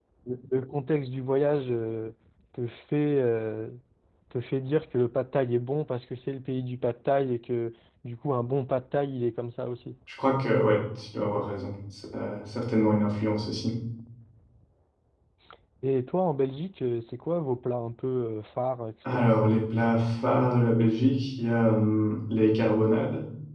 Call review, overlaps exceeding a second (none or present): none